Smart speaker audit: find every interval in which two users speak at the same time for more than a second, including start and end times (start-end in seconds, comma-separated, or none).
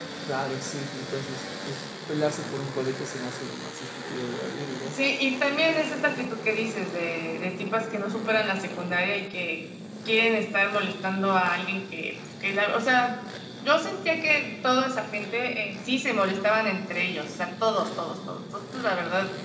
none